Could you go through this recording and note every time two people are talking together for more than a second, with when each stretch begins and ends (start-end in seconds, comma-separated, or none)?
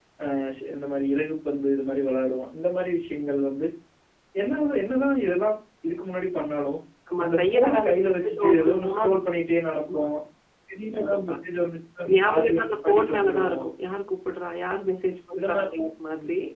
7.2-9.0, 12.1-13.6